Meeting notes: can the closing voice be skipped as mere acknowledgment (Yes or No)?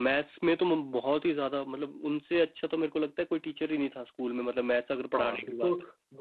No